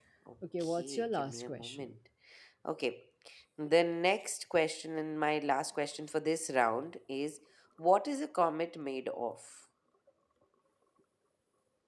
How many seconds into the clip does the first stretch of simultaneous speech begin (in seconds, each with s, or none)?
0.6 s